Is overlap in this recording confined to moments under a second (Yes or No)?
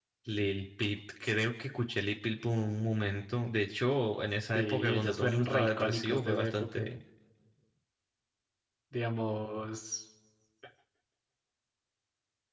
No